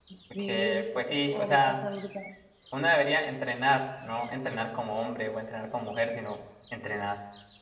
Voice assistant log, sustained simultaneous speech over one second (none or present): present